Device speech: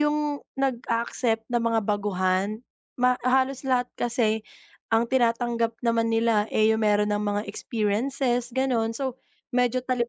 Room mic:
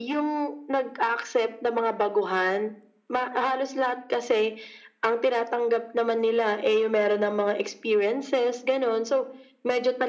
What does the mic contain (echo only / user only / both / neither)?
echo only